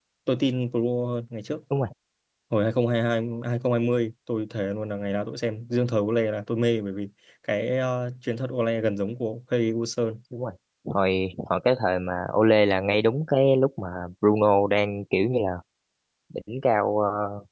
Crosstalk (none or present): none